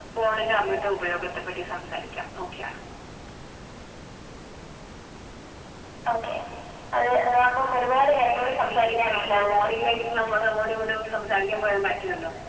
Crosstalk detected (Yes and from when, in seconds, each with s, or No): Yes, from 8.4 s